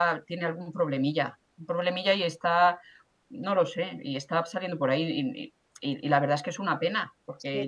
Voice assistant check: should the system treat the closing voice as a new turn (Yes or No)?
No